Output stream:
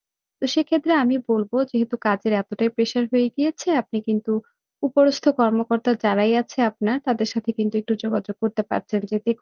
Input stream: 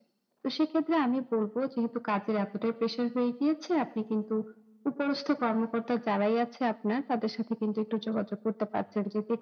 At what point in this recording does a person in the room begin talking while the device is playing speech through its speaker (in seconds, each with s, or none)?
none